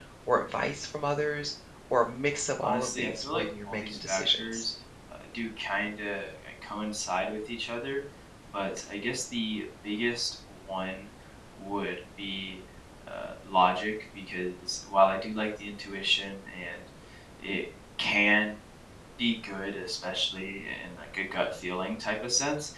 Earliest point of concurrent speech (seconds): 2.6 s

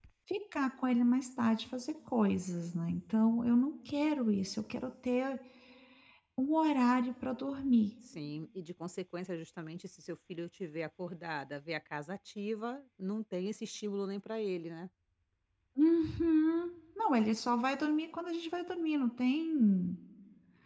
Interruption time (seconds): none

